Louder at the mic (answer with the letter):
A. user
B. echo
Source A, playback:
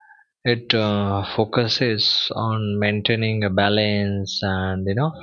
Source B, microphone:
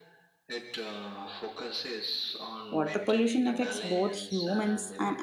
A